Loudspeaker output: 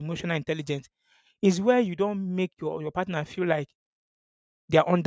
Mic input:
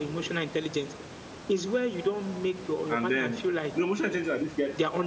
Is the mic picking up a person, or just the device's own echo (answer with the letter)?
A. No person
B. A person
B